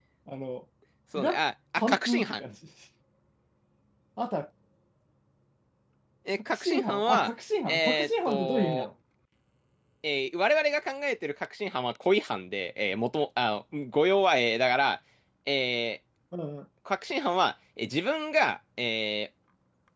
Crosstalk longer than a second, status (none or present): present